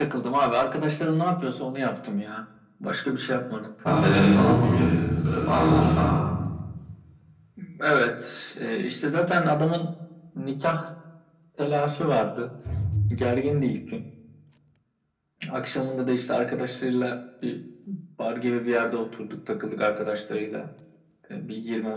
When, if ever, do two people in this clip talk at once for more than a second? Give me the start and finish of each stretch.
none

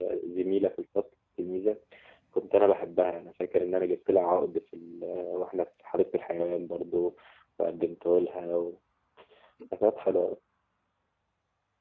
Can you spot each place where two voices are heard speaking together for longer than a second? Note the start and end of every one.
none

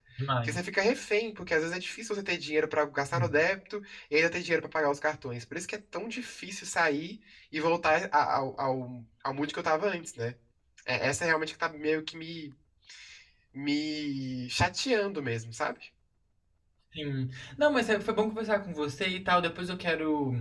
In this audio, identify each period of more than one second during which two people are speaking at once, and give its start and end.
none

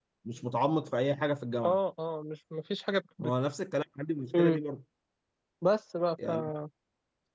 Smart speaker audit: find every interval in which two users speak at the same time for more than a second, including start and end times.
none

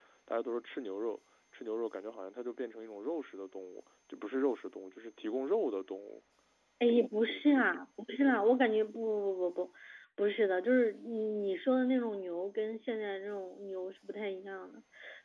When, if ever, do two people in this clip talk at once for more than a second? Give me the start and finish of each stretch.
none

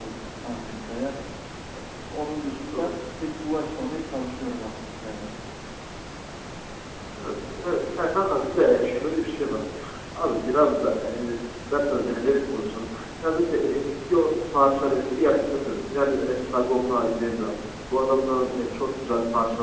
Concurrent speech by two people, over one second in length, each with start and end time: none

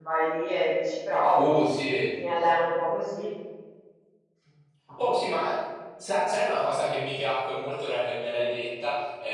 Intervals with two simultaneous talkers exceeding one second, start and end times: none

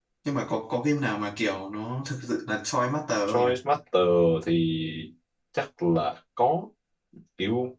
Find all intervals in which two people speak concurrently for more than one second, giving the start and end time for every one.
none

